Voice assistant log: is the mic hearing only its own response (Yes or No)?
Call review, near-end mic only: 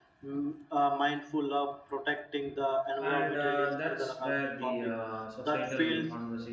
No